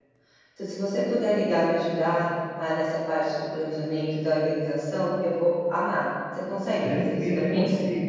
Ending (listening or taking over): taking over